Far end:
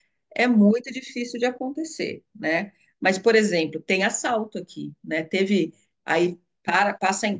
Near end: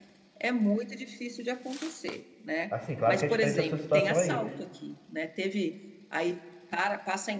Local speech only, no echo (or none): Assim, claro que é diferente a sua situação aí.